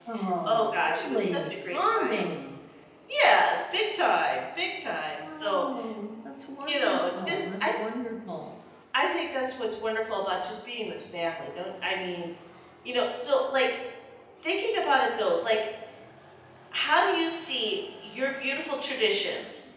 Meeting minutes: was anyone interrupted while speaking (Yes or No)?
Yes